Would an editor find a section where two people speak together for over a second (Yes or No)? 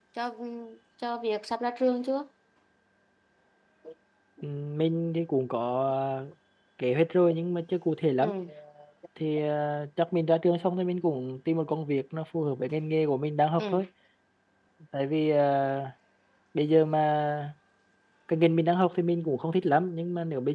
No